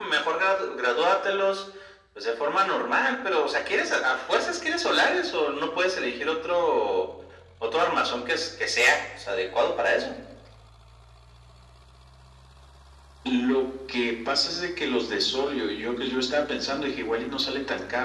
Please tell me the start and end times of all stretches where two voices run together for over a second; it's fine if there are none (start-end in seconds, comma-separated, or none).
none